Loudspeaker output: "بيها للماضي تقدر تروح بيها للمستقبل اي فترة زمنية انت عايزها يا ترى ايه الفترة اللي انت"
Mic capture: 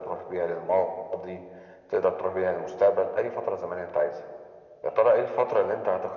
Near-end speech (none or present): none